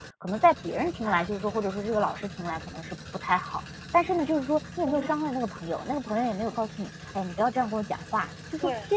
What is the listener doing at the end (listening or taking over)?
listening